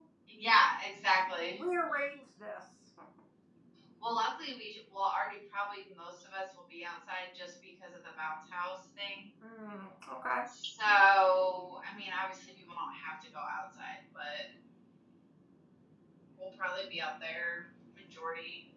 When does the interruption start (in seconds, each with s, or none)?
none